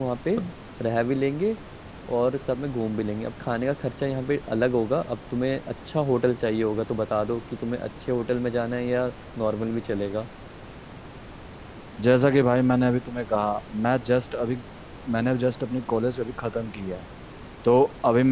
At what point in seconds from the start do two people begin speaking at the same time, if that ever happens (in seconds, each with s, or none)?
none